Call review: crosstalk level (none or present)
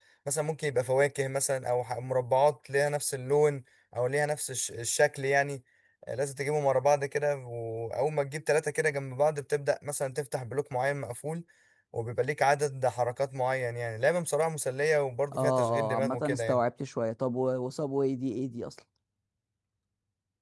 present